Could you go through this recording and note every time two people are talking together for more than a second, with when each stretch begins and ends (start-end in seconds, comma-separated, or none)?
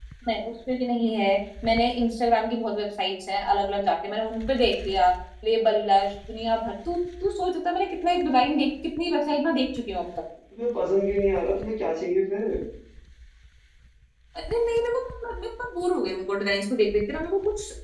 none